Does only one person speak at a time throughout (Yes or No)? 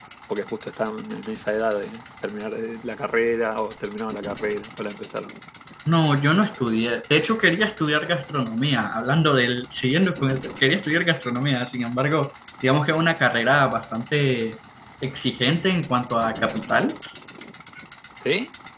Yes